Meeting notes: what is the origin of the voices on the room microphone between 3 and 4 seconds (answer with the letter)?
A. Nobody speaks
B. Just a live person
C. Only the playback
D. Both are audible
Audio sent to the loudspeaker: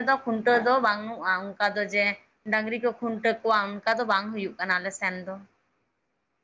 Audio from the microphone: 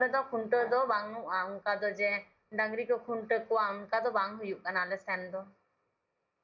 C